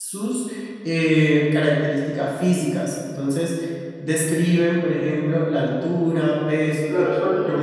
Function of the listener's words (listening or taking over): taking over